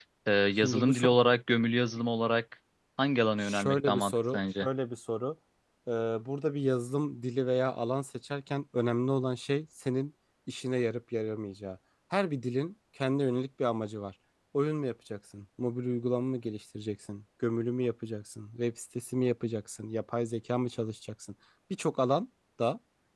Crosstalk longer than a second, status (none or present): present